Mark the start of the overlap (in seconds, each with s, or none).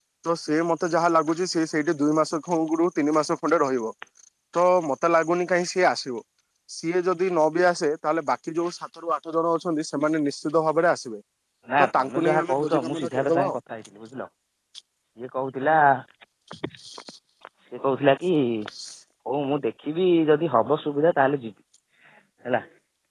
11.8 s